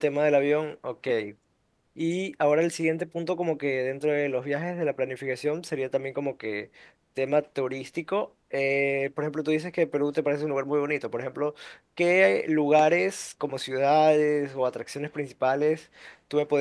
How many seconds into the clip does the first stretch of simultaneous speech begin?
none

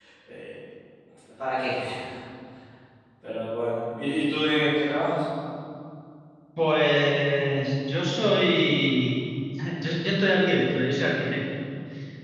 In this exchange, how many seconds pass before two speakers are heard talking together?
none

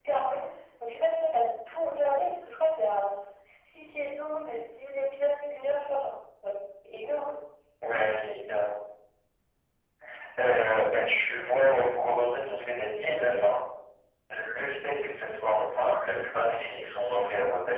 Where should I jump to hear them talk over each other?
none

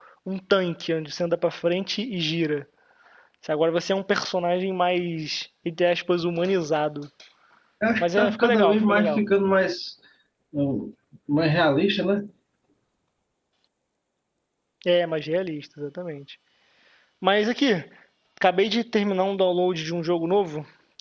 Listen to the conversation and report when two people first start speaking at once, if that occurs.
8 s

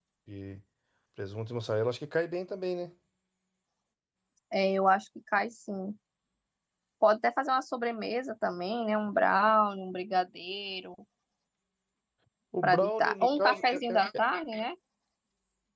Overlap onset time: 13 s

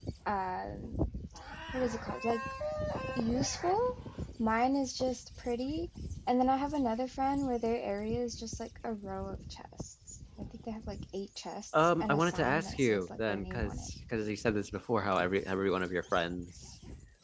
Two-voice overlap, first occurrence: 12 s

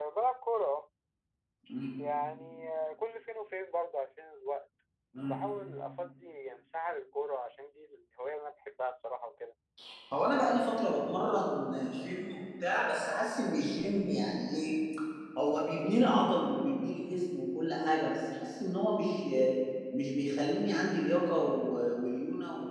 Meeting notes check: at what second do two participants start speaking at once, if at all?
none

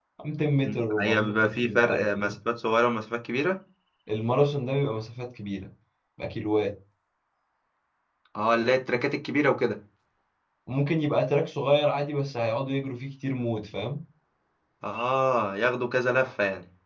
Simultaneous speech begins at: 1 s

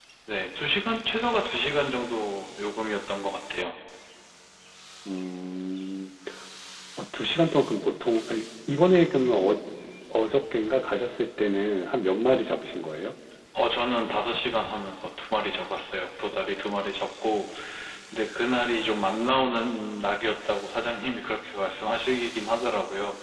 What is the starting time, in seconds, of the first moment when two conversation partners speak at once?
none

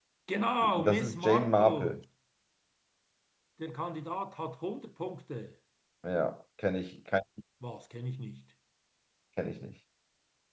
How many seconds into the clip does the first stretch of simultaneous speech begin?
1 s

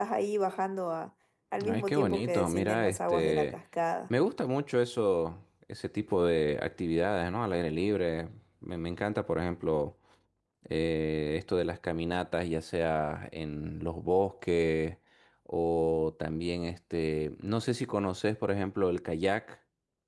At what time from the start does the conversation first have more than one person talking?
2 s

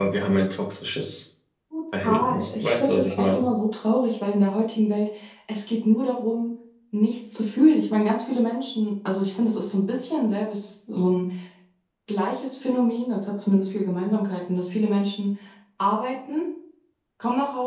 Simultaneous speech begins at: 2 s

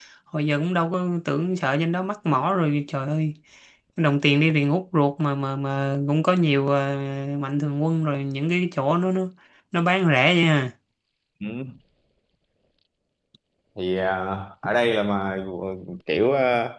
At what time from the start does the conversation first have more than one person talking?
none

